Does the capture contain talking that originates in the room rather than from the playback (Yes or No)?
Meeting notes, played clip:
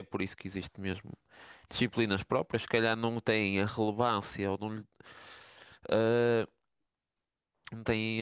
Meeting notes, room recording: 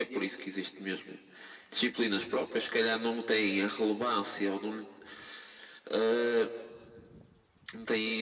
No